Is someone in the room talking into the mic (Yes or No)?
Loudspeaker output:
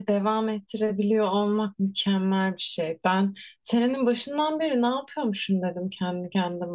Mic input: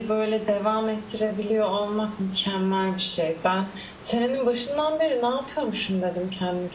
No